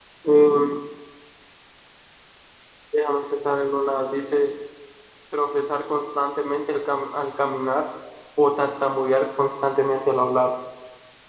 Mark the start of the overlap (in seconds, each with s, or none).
none